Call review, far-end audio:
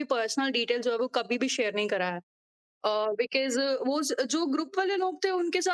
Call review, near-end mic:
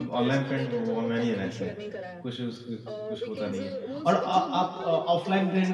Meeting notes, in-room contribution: present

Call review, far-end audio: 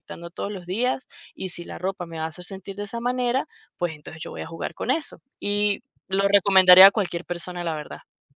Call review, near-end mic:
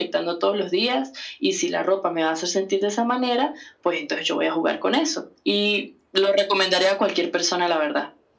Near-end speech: none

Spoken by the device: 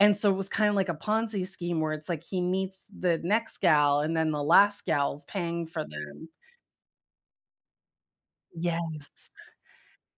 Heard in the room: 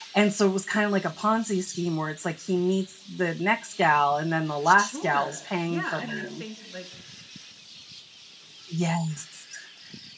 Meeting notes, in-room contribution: present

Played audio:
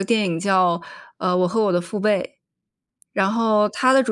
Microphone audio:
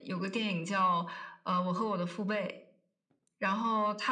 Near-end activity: none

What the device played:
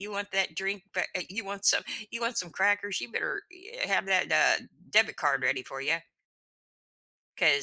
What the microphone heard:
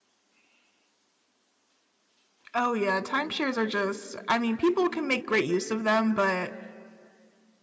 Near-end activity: present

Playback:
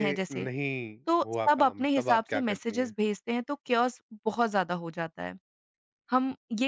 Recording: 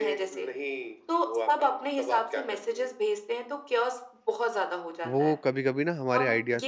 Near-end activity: present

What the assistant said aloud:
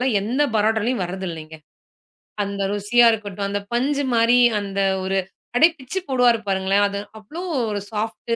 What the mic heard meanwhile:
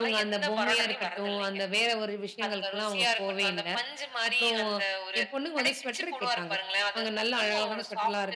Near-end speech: present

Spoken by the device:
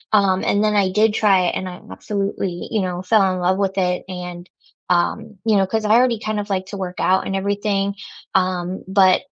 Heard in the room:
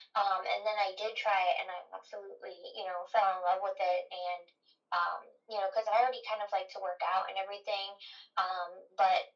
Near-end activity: none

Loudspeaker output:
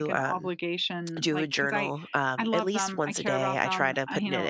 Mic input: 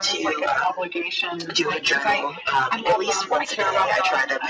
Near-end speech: none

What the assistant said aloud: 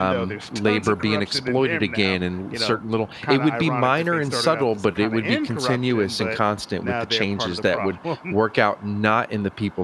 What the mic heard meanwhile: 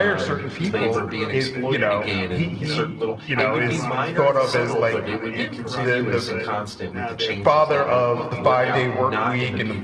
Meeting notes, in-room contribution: present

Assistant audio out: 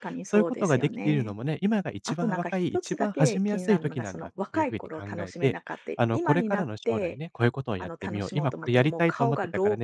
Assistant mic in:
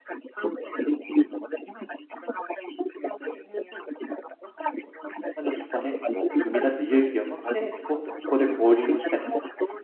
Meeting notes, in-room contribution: present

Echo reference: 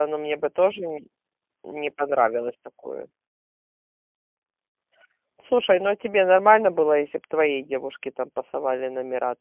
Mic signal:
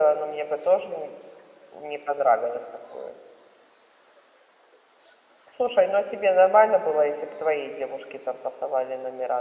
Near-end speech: none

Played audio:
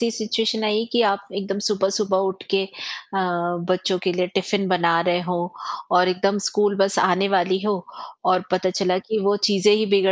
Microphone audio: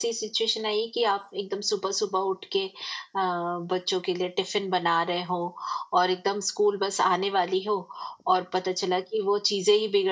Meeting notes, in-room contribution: none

